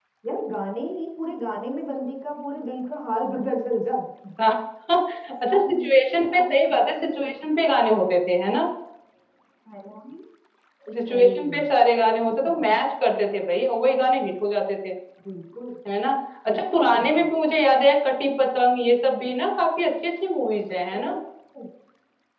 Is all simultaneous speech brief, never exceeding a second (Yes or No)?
No